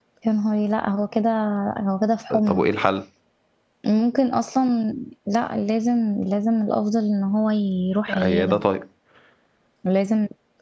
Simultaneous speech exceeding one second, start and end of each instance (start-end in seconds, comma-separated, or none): none